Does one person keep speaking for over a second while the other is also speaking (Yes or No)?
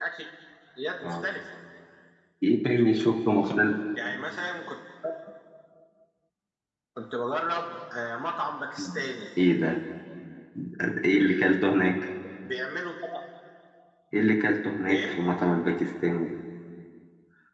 No